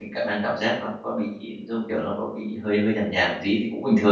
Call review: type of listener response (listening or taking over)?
taking over